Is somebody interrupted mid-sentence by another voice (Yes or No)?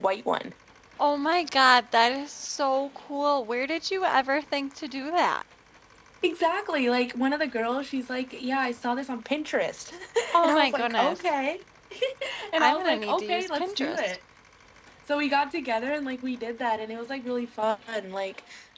Yes